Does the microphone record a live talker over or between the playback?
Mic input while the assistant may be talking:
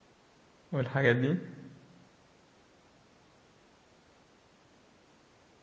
Yes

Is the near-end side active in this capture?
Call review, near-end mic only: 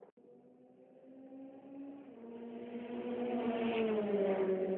No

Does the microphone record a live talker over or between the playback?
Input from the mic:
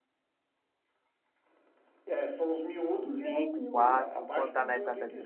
Yes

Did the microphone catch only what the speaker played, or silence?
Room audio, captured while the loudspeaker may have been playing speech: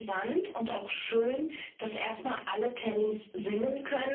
Yes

